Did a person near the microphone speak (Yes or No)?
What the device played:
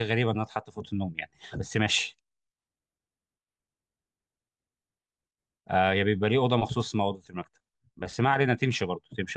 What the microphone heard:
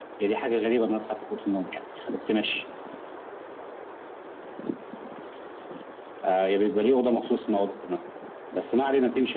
No